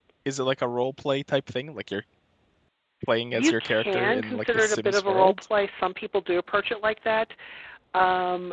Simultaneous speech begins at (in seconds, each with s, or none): 3.3 s